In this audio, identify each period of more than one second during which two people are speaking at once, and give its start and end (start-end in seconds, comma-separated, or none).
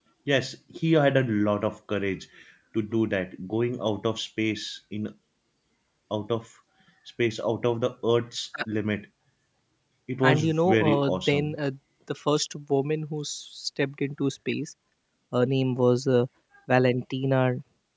10.2-11.5